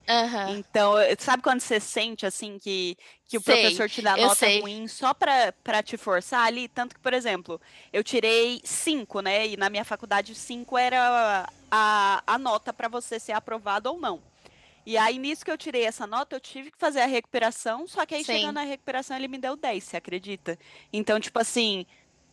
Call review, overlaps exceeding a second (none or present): present